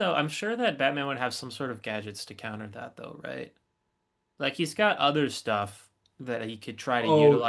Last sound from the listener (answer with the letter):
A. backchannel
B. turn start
A